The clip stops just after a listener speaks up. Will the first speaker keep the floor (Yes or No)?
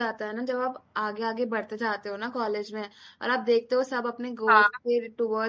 Yes